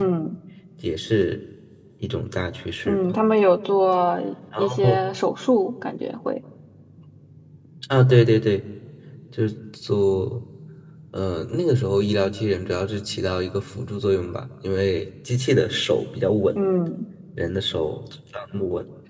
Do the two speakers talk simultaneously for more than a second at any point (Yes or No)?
No